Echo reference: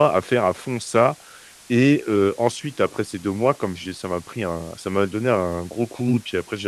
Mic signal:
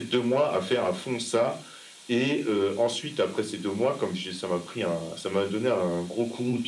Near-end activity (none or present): none